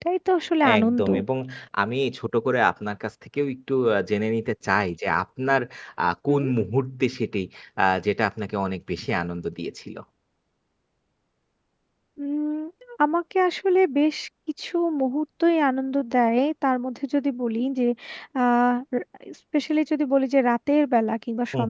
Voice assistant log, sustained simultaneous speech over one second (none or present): none